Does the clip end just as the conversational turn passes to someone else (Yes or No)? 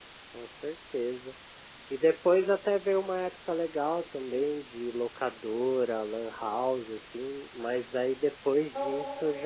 No